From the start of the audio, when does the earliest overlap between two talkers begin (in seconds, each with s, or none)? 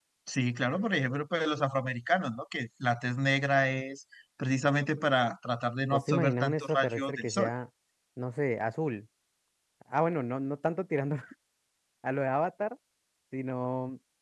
5.9 s